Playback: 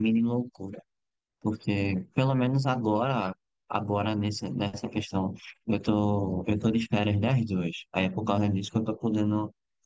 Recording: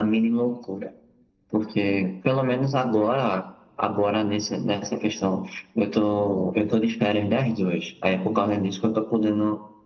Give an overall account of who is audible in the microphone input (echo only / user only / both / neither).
echo only